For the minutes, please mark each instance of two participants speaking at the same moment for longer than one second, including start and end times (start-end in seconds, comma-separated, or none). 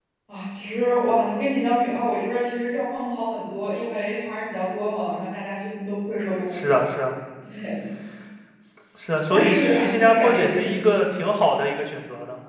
9.3-10.7